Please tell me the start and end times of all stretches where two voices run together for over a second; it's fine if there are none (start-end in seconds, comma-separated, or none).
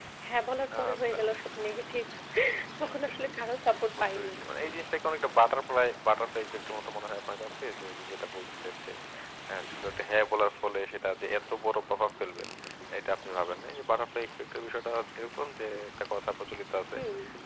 none